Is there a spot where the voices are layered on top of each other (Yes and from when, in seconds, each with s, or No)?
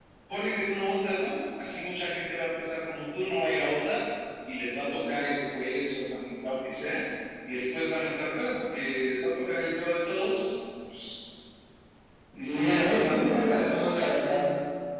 Yes, from 12.4 s